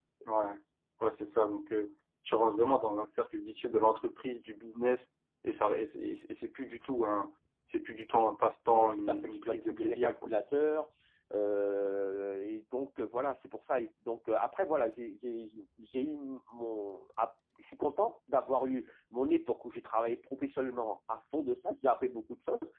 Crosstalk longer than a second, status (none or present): present